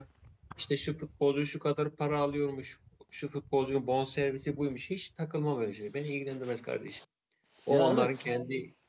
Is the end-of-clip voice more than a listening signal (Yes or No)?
No